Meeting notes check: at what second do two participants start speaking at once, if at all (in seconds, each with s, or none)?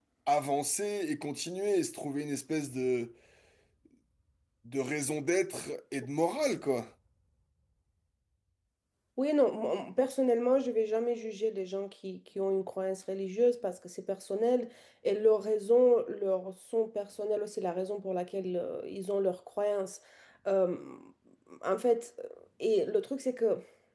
none